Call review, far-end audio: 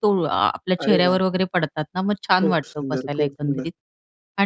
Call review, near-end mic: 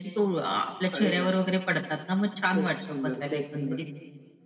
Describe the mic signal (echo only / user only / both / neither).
echo only